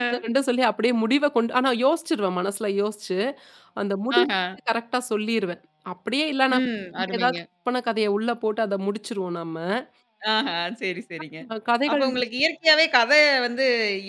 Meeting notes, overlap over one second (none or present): none